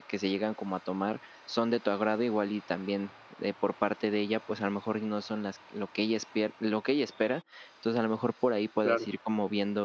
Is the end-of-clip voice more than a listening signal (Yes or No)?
No